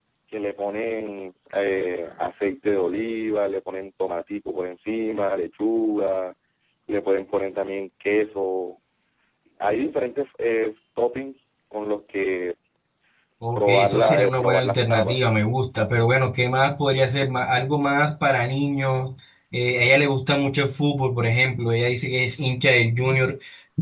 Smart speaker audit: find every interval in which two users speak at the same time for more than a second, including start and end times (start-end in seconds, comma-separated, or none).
13.6-15.3